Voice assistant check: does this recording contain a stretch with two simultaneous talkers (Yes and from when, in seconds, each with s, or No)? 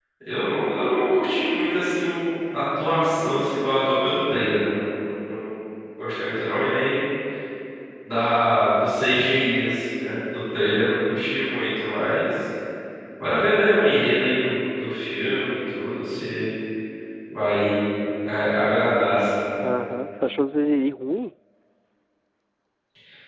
No